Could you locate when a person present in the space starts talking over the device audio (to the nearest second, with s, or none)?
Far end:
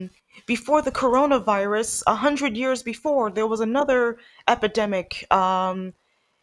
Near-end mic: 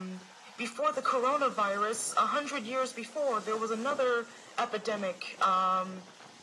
none